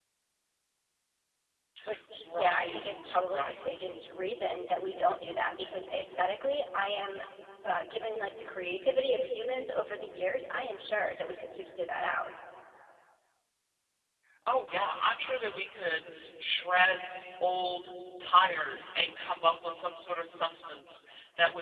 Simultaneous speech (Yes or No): Yes